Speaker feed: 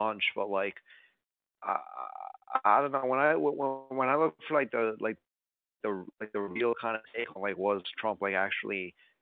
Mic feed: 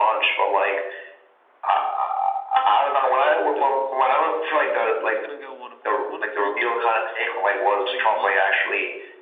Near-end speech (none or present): present